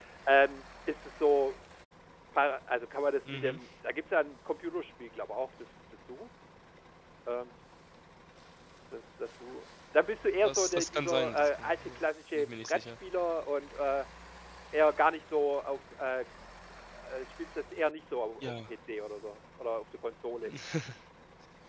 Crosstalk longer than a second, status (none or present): present